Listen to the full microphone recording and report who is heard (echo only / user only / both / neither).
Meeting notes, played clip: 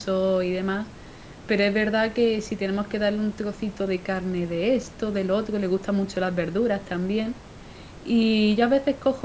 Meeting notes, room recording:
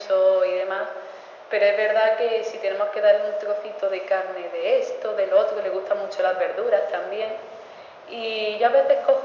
echo only